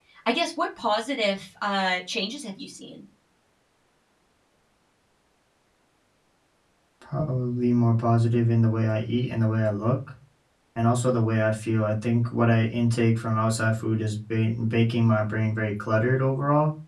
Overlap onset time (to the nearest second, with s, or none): none